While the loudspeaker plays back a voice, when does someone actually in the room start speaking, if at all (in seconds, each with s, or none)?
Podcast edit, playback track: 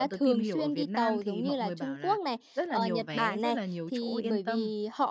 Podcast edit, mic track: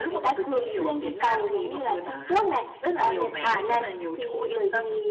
none